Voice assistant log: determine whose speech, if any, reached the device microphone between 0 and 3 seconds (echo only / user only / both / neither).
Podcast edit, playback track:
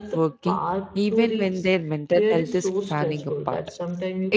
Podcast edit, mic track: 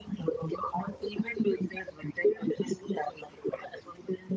echo only